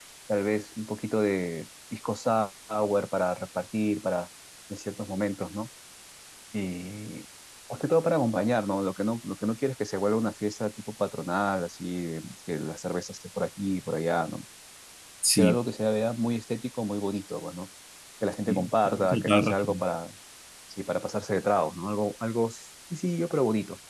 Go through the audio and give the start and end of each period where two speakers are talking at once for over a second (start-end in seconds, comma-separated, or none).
18.5-19.8